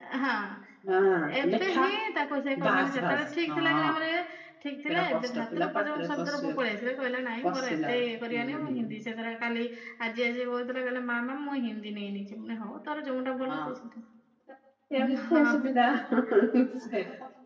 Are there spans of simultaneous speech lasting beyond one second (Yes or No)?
Yes